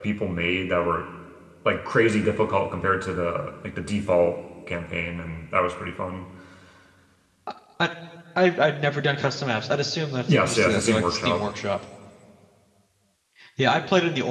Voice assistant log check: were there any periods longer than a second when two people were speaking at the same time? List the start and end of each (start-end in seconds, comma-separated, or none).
10.3-11.5